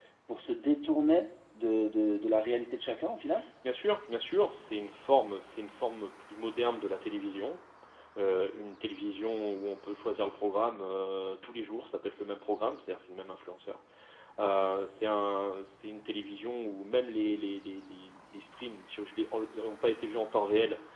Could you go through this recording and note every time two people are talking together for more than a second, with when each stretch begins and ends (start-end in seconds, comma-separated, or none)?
none